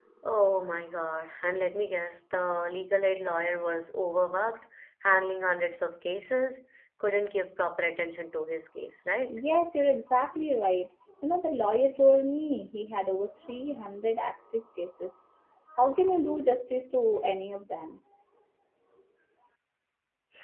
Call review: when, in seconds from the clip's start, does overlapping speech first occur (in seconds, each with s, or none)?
none